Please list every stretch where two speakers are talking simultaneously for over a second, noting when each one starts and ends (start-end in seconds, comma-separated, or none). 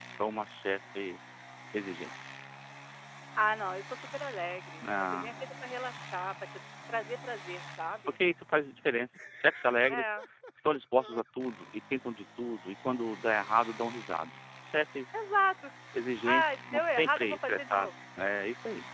16.2-17.9